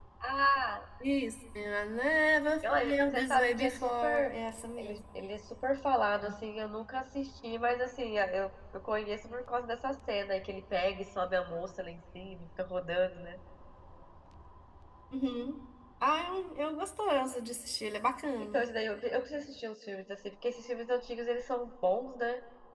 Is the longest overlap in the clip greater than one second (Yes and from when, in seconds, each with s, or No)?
Yes, from 2.6 s